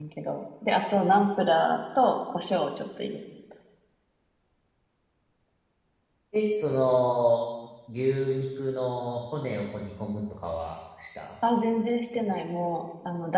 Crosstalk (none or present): none